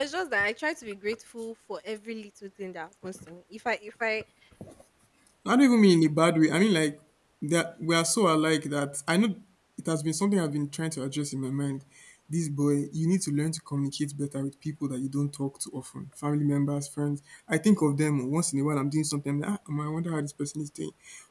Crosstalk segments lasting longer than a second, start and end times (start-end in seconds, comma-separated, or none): none